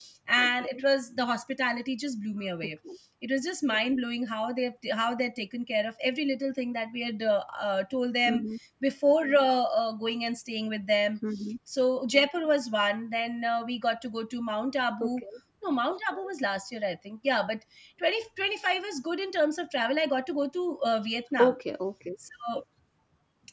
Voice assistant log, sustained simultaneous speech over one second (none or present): none